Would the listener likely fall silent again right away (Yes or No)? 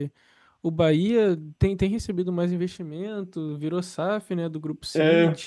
No